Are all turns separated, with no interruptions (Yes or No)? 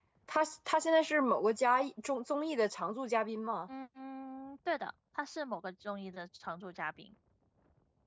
Yes